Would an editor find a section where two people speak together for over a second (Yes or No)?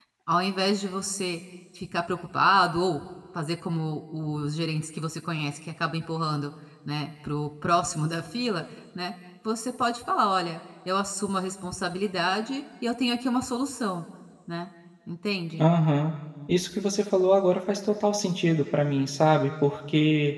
No